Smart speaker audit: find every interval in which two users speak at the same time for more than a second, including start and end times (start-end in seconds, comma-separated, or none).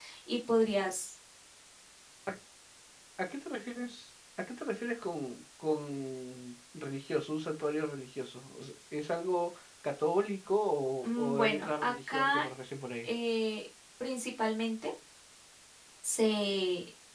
11.0-12.5